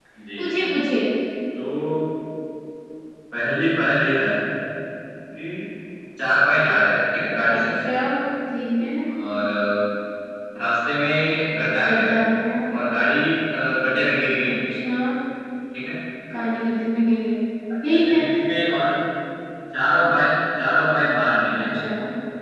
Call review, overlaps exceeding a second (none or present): none